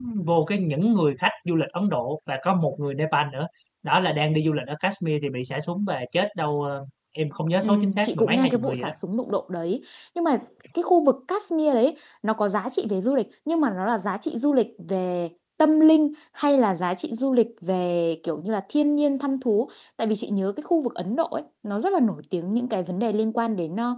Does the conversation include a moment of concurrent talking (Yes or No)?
Yes